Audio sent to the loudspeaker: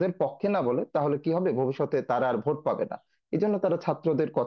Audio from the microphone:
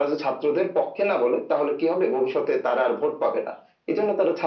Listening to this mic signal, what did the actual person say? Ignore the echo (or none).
none